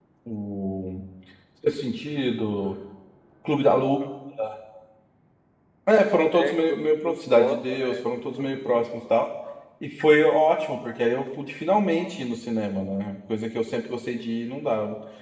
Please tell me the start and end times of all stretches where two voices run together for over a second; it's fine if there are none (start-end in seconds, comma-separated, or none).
6.3-8.9